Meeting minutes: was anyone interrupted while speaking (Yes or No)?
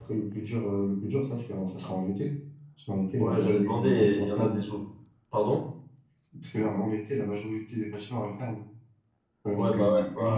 Yes